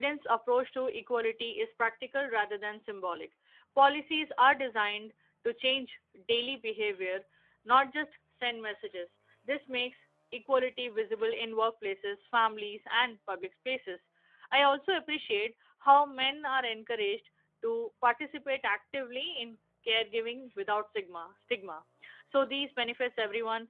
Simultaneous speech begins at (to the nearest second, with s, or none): none